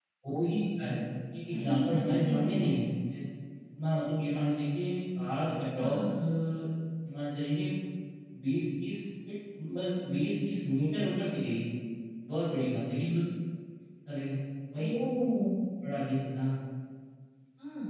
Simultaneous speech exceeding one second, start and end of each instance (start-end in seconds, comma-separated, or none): 1.5-2.8